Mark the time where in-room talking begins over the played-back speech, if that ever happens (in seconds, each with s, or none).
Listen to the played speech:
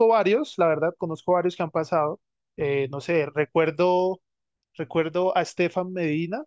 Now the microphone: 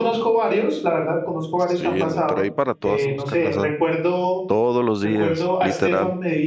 1.6 s